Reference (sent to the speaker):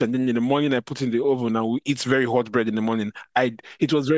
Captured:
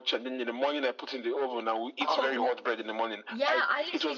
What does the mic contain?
both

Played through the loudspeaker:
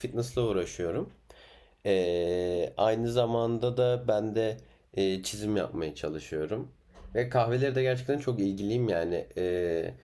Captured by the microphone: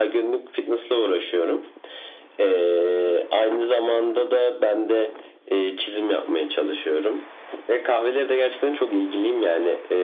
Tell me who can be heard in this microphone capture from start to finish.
echo only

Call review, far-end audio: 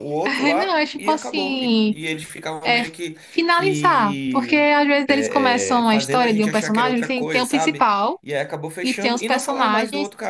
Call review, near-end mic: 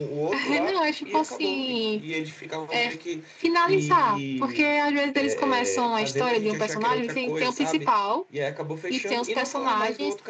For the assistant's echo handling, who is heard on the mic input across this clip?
echo only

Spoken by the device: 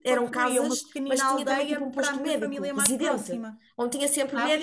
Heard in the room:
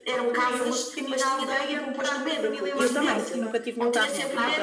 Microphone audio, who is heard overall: both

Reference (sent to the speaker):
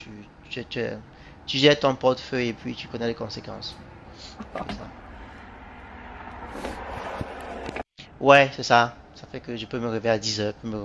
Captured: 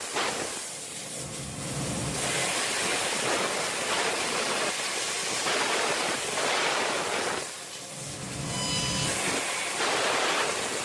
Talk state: neither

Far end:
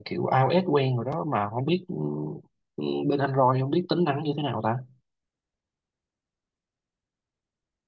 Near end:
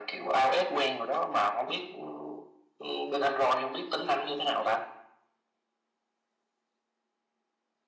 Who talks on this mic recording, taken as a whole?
echo only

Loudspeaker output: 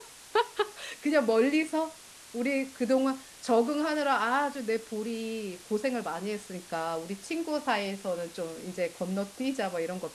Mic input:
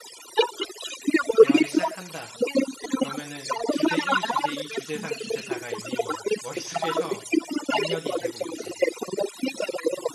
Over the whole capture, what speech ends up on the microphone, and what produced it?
both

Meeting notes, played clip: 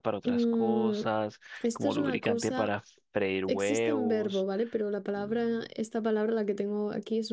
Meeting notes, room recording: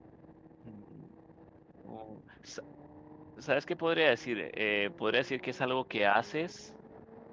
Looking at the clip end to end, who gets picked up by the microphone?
user only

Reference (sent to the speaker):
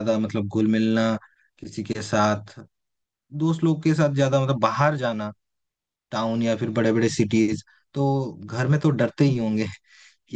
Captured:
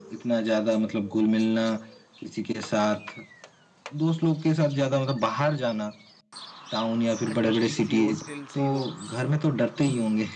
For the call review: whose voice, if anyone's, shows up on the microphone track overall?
both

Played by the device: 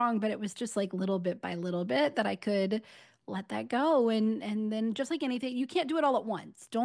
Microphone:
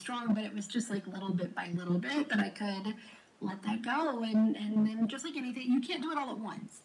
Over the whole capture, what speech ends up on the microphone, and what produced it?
echo only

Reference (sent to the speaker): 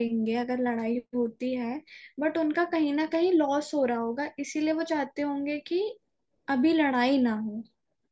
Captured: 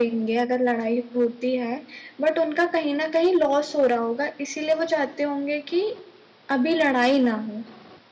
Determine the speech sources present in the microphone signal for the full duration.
echo only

